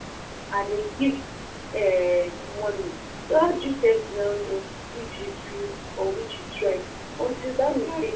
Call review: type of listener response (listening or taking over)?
listening